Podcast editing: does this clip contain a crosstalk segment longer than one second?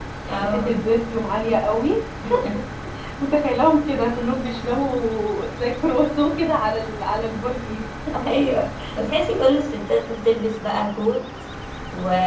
No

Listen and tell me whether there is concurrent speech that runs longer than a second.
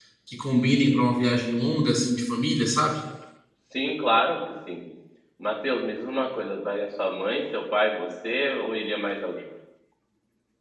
No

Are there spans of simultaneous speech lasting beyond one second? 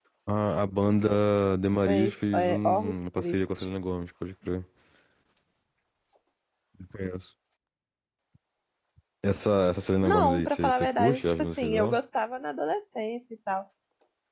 Yes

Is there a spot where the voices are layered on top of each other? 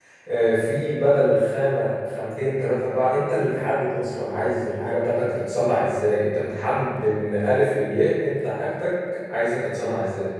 No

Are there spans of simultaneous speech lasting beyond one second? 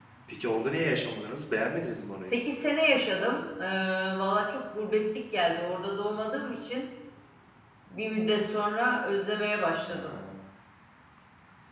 No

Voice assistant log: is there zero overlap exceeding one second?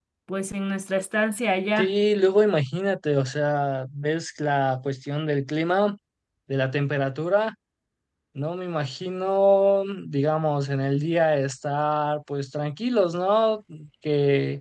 Yes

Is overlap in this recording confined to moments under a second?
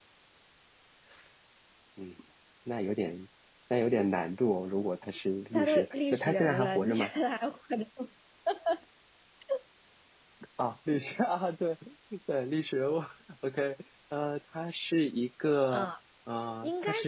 No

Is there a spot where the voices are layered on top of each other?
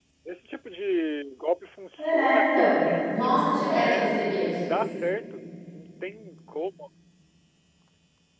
Yes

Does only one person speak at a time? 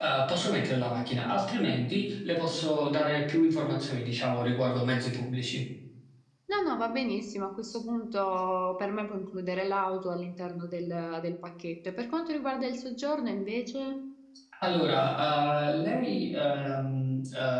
Yes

